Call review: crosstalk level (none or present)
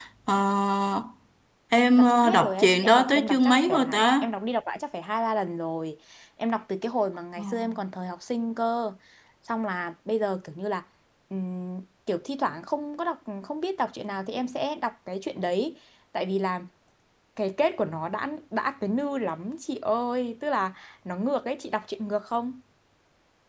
present